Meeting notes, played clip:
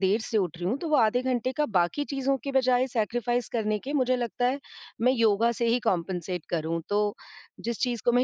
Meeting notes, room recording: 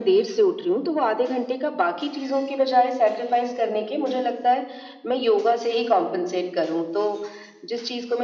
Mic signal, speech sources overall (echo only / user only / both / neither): echo only